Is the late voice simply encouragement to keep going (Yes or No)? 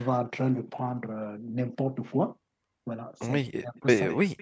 No